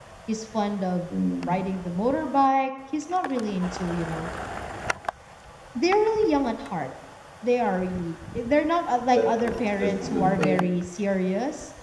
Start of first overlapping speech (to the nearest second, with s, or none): 9 s